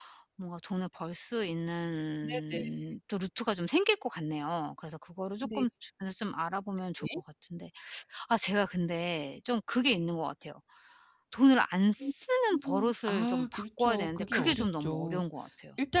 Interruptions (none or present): present